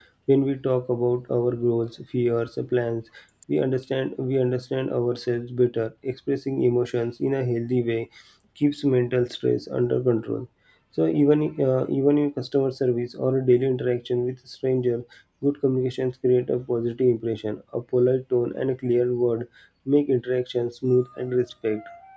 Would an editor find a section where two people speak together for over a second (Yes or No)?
No